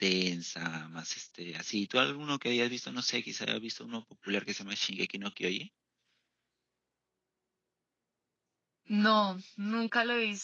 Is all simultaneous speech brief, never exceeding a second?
Yes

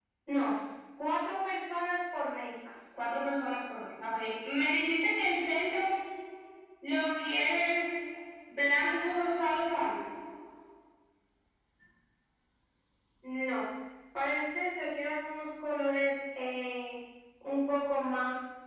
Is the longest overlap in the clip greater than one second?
No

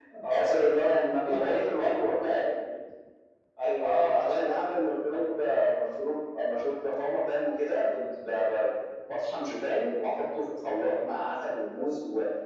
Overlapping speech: Yes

